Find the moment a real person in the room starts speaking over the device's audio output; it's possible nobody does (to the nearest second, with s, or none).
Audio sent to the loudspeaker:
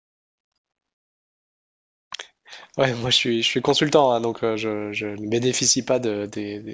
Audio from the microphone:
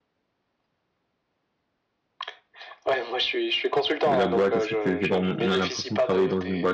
4 s